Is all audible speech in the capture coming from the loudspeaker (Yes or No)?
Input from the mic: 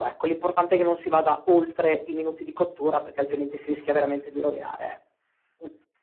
Yes